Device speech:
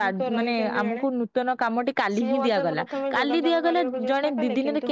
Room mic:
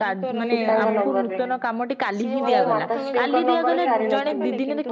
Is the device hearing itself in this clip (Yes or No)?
Yes